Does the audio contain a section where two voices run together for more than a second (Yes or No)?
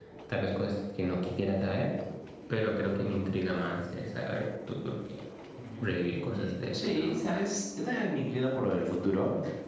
Yes